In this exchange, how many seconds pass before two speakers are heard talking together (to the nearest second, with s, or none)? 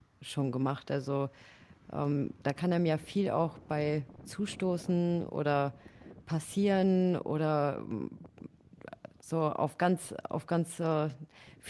none